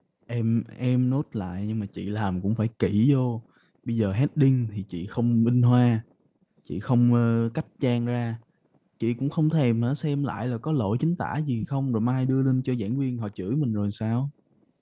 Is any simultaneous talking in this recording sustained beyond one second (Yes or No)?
No